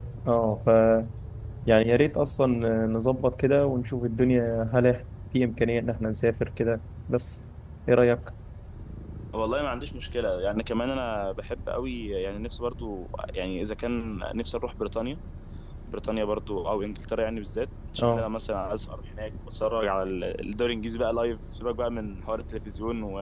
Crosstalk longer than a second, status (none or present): none